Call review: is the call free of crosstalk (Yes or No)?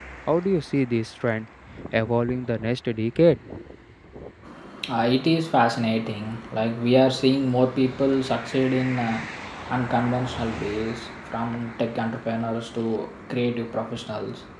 Yes